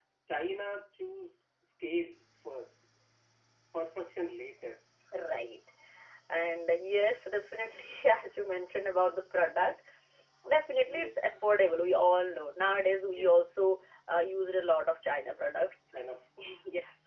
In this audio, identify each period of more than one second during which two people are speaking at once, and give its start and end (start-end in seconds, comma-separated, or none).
none